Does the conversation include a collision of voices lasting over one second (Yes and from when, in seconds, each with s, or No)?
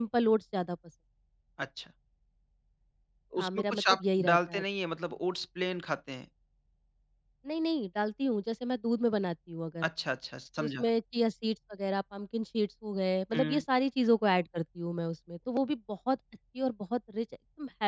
Yes, from 3.4 s